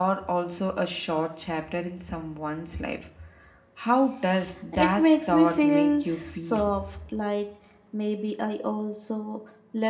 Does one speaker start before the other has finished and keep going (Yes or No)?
Yes